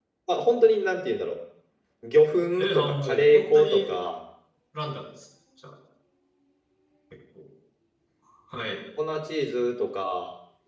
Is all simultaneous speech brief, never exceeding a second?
No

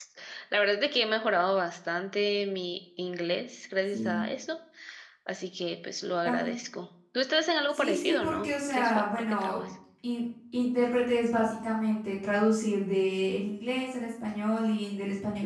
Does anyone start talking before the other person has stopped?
Yes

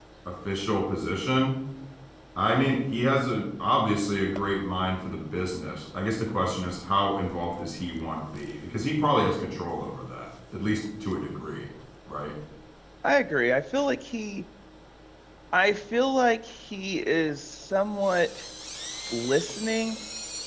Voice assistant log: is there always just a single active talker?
Yes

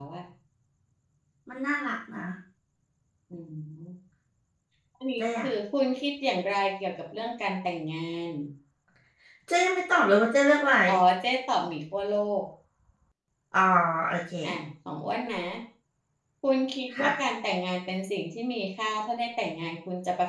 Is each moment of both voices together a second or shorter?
Yes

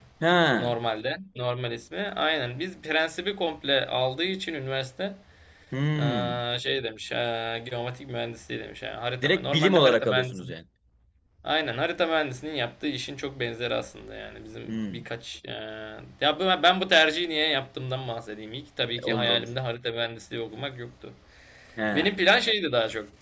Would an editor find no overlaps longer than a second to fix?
No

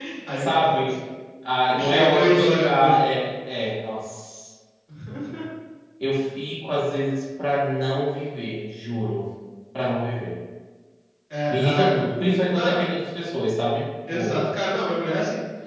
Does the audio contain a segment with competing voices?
Yes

